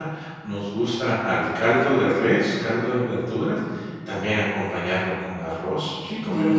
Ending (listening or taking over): taking over